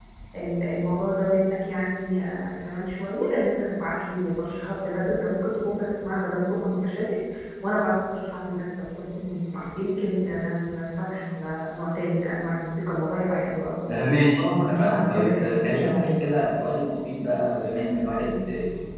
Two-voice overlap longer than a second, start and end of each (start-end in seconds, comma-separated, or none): 14.4-16.2